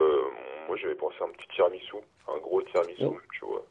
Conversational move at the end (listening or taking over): taking over